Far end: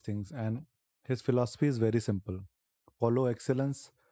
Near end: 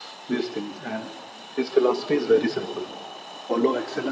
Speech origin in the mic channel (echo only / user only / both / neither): echo only